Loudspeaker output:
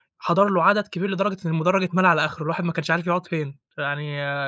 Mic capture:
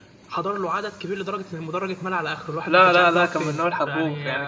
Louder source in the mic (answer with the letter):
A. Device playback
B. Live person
B